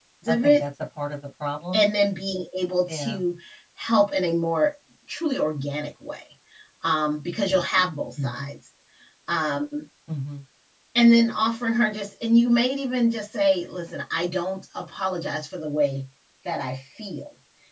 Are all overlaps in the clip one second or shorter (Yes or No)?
Yes